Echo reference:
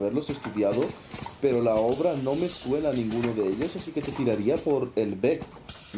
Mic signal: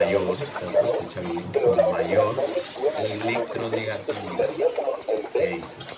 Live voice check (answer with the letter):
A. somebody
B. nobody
A